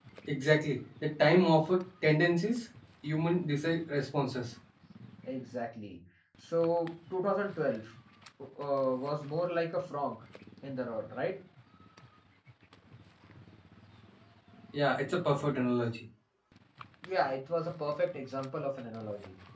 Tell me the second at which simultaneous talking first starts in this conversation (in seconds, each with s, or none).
none